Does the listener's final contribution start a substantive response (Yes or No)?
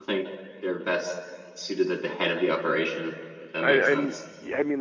Yes